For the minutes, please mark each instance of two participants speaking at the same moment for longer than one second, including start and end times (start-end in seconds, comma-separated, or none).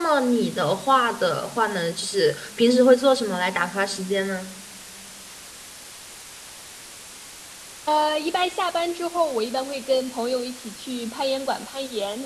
none